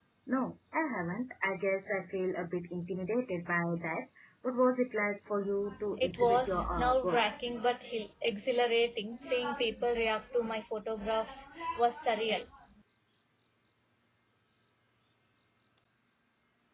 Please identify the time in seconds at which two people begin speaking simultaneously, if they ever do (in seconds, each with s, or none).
5.9 s